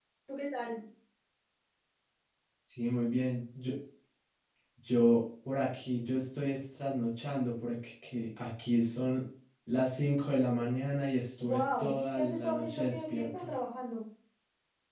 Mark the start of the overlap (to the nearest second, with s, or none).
11 s